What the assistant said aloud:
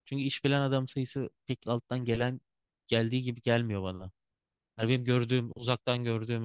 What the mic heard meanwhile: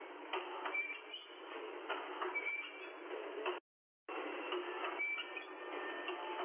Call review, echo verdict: none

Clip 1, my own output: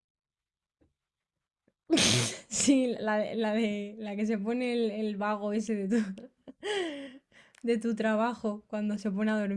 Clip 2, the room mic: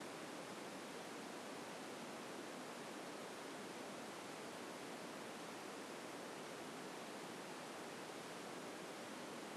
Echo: none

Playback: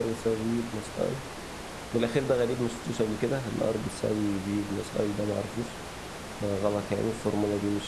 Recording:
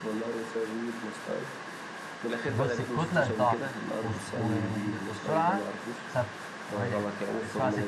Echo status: present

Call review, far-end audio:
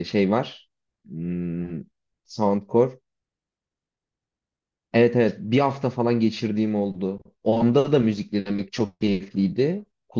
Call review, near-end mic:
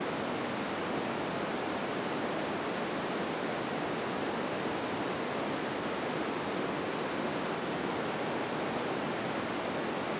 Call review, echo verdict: none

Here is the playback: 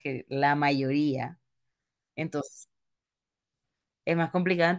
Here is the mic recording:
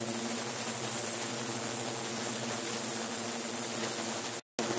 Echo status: none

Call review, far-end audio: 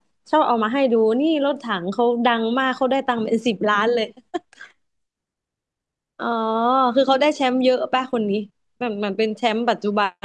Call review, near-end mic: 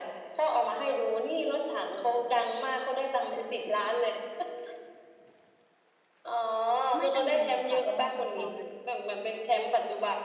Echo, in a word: present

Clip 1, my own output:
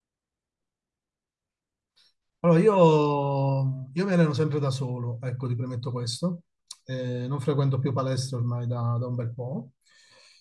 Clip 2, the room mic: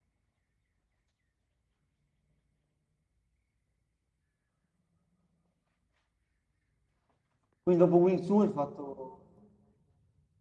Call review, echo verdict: none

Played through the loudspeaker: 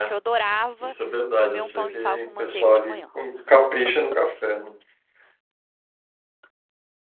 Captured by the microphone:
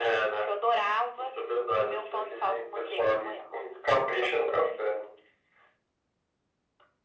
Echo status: present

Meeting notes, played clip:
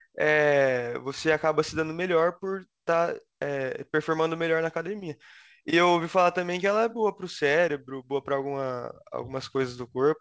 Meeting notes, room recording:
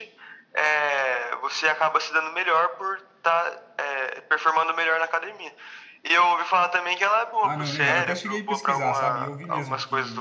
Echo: present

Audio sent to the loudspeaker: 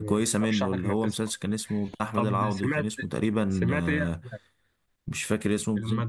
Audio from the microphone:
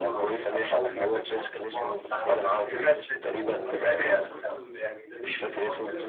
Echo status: present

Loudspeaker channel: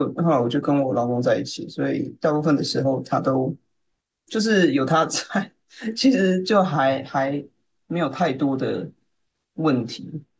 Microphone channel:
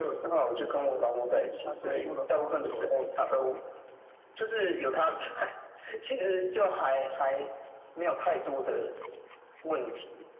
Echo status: present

